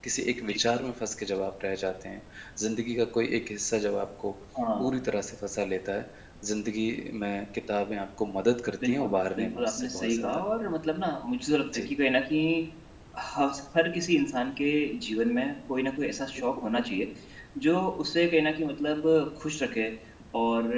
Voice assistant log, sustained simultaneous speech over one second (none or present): present